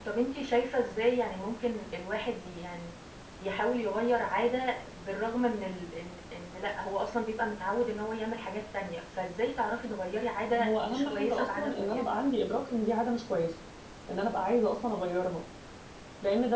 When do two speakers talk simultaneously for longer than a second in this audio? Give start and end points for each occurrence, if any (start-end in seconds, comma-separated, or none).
10.6-12.0